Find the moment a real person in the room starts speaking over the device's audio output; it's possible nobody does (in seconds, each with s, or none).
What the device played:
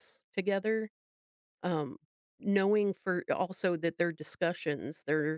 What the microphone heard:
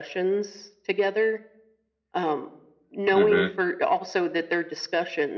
3.1 s